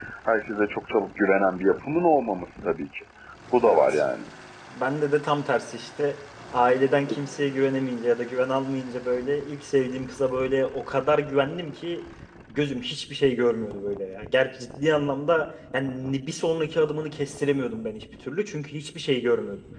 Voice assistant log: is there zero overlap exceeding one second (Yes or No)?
Yes